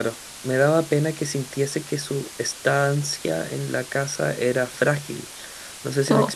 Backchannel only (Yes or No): Yes